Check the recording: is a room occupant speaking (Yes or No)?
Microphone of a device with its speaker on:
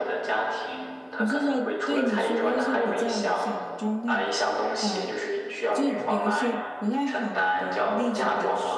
Yes